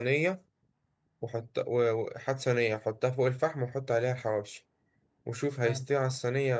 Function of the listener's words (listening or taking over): listening